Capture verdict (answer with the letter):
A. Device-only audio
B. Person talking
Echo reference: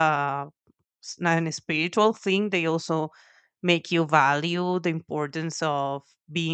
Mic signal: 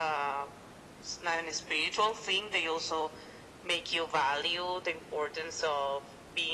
A